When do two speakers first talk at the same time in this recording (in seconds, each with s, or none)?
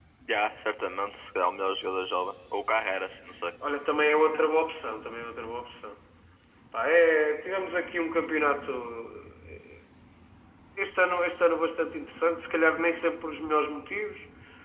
none